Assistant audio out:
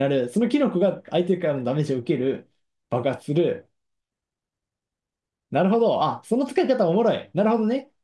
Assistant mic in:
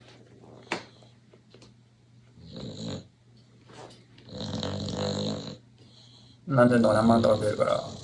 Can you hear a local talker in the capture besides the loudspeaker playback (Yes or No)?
Yes